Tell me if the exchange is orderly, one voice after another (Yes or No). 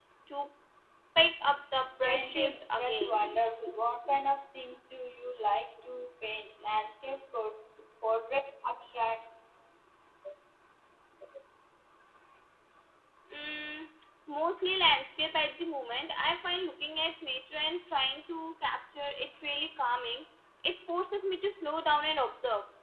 No